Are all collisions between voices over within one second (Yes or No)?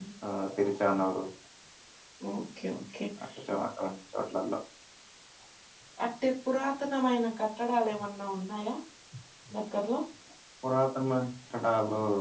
Yes